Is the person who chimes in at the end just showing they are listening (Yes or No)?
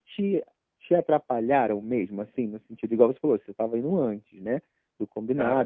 Yes